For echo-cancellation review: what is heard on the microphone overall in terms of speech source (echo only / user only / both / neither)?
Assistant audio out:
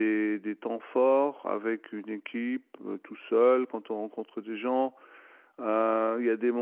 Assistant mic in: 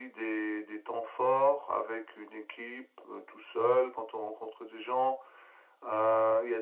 echo only